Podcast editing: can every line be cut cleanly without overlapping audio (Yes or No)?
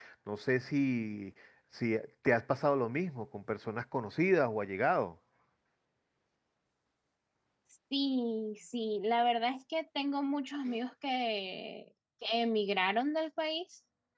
Yes